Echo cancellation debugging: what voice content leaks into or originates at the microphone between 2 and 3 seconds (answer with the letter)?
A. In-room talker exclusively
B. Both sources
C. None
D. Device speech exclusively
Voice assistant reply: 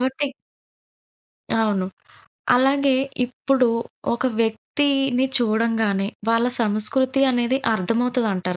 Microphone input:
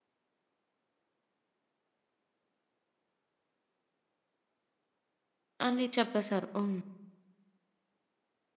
C